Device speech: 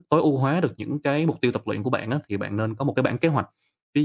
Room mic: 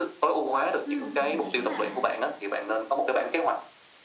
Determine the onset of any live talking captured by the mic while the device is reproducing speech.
0.8 s

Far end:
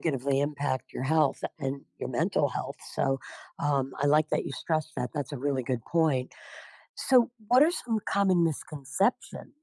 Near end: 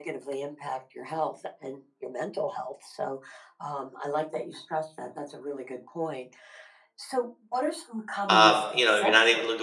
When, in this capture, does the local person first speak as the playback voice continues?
8.3 s

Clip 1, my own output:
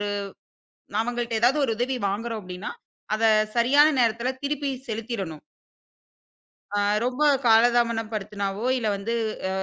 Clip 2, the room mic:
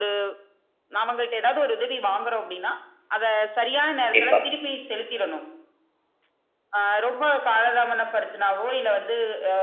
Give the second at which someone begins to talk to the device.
4.0 s

